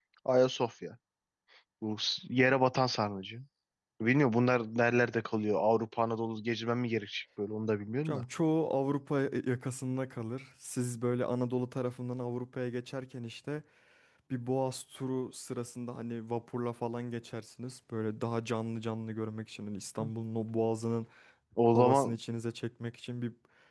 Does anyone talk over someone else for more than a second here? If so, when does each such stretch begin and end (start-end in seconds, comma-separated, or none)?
none